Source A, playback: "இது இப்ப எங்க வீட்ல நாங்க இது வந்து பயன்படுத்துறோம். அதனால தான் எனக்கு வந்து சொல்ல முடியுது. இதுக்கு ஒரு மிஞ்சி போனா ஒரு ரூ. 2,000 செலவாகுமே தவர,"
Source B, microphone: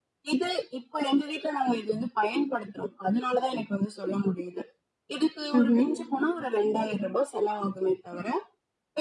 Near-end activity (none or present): present